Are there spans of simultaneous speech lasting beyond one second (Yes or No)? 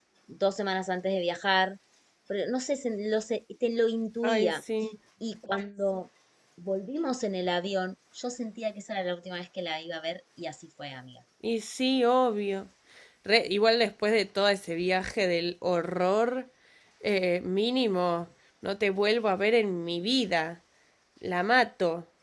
No